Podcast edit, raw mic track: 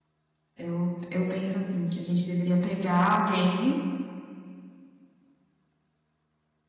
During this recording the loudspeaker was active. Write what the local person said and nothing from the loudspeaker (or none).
Eu, eu penso, assim, que a gente deveria pegar alguém